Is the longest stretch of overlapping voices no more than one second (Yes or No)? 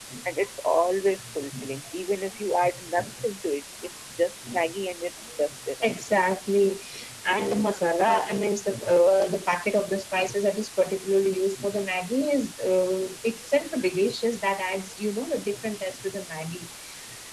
Yes